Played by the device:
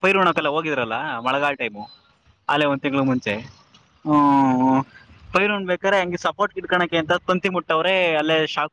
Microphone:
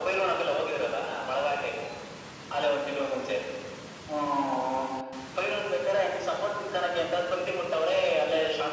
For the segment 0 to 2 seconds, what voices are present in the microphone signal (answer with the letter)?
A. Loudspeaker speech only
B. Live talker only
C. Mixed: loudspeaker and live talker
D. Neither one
A